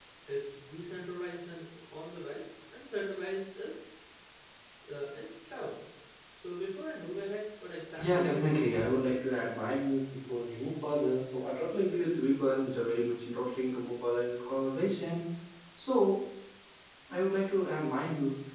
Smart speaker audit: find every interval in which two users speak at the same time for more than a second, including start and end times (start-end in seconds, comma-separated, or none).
8.0-9.4